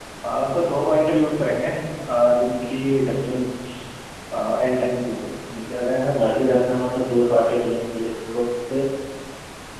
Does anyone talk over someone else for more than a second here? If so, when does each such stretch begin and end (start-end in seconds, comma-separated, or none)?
none